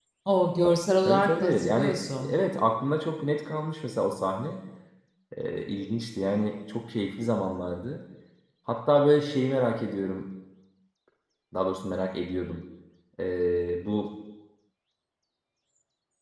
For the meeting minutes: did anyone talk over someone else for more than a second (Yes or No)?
Yes